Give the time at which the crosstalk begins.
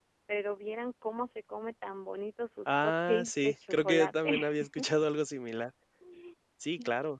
3 s

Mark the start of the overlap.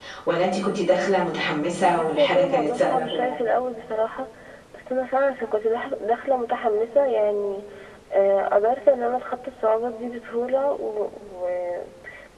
2 s

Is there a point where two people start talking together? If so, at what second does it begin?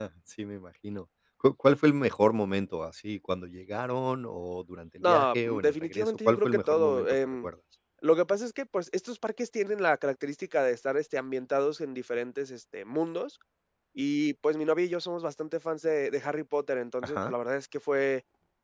5 s

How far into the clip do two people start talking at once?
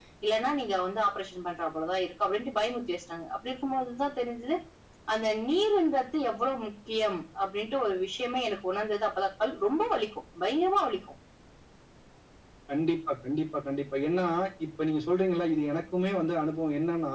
none

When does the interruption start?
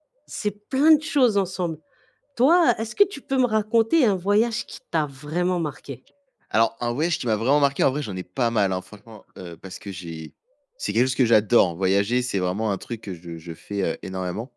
none

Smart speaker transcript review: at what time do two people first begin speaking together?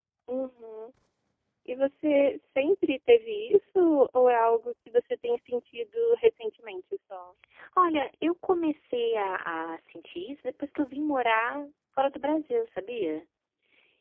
none

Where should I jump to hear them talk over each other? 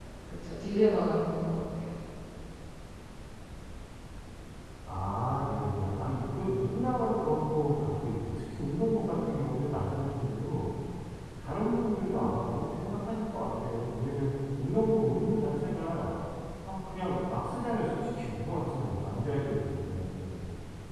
none

